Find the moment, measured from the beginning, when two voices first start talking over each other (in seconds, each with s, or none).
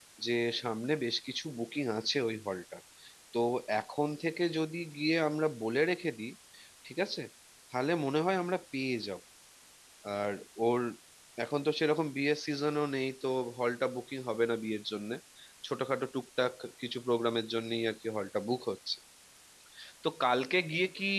none